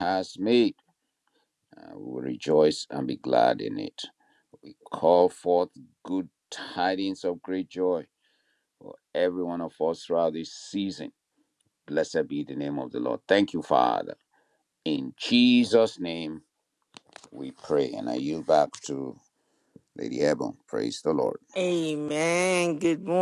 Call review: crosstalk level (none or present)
none